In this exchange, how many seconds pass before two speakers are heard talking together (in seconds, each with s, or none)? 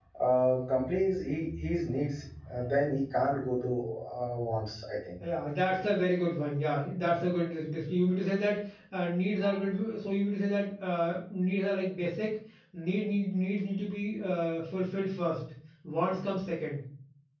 none